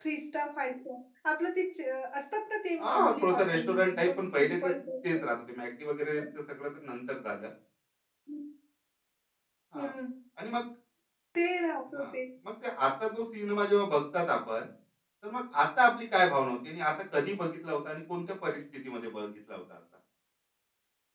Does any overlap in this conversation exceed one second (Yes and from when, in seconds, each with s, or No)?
Yes, from 2.8 s